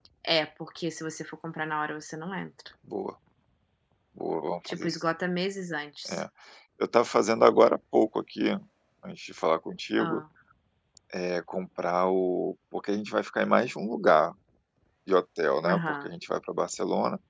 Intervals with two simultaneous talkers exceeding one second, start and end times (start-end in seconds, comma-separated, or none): none